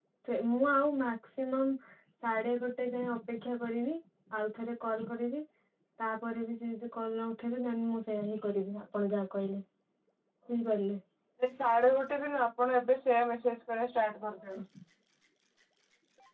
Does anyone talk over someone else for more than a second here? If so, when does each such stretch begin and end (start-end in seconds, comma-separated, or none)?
none